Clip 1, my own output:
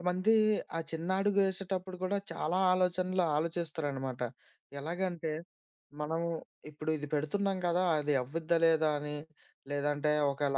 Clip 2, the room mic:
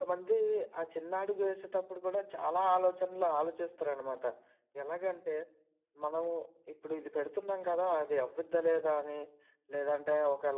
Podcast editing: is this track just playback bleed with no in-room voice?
Yes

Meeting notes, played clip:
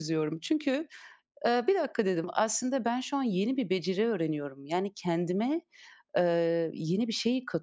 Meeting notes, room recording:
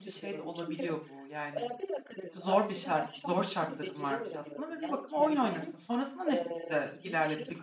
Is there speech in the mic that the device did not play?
Yes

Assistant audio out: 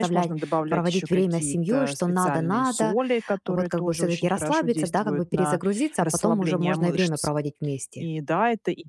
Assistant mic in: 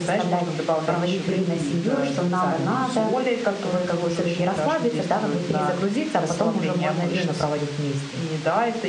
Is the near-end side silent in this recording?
Yes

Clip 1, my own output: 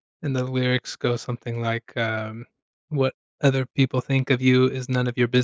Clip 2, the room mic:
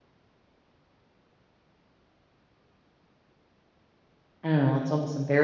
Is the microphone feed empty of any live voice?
No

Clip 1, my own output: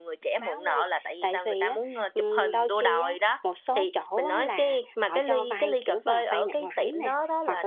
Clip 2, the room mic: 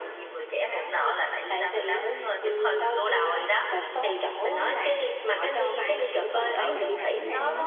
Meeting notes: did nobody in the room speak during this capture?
No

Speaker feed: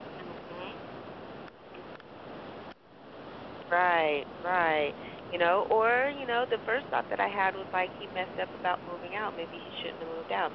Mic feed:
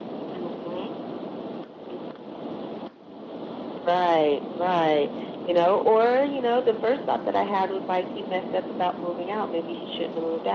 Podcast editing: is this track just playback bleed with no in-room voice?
Yes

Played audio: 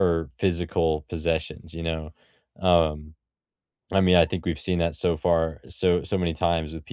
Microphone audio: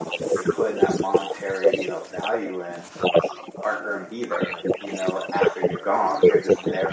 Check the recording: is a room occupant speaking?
Yes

